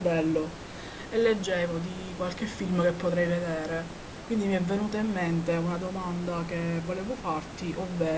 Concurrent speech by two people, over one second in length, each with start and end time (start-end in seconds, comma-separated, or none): none